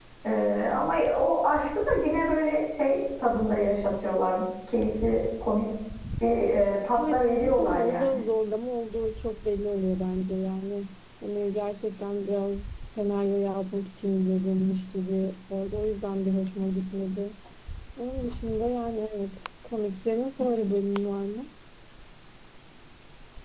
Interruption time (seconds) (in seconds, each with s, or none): 7.0 s